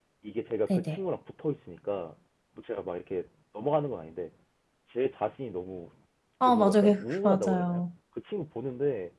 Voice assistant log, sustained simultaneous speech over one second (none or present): present